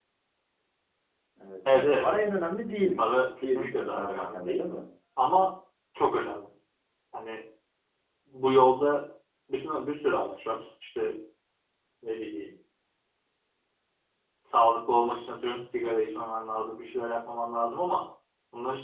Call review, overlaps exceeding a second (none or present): present